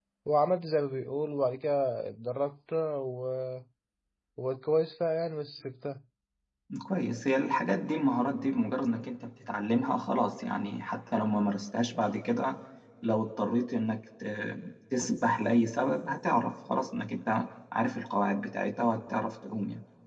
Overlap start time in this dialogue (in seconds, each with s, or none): none